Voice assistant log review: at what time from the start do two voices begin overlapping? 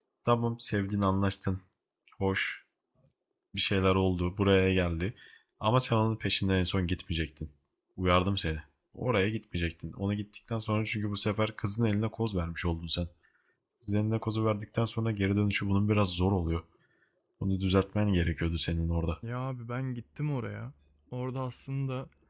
none

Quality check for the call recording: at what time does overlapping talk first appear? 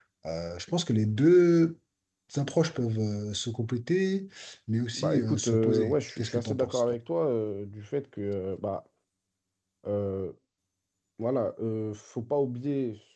4.9 s

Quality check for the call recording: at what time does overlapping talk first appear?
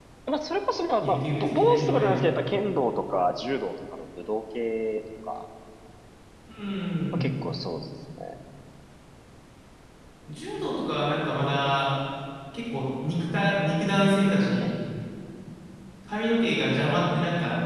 1.0 s

